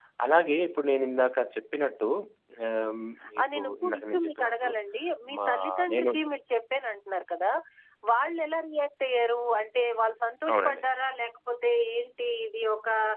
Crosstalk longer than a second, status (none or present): present